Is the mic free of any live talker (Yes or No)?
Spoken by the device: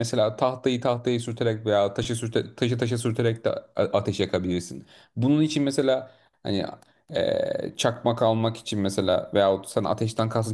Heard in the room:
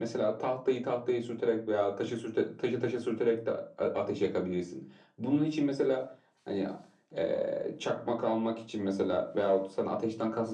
Yes